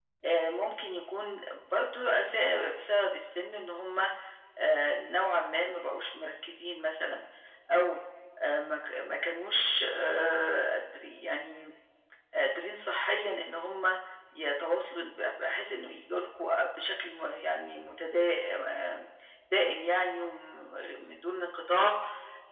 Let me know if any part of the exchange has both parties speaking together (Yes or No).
No